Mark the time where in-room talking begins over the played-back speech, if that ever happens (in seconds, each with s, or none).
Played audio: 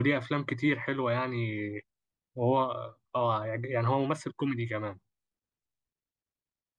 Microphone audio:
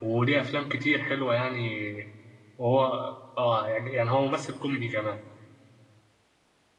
none